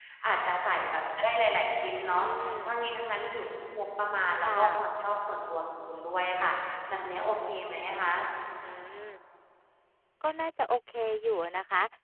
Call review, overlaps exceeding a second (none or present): none